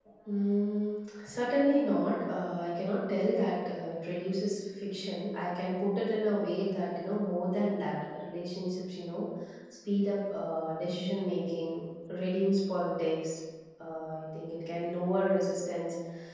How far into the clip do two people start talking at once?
none

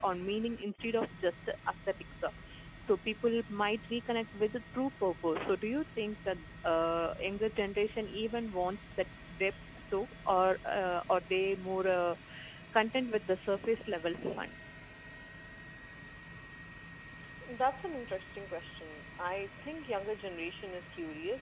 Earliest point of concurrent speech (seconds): none

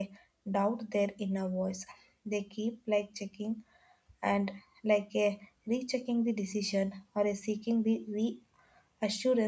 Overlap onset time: none

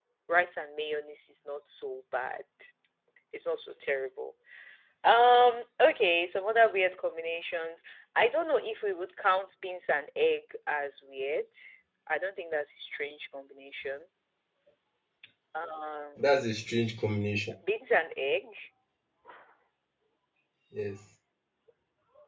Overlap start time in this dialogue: none

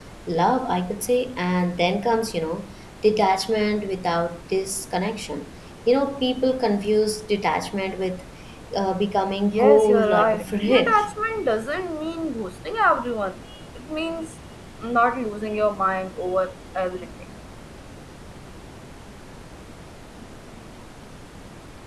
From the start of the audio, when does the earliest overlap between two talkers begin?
9.5 s

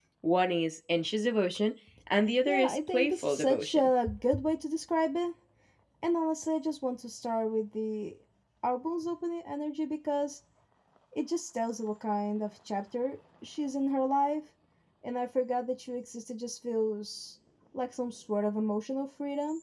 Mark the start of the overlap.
2.5 s

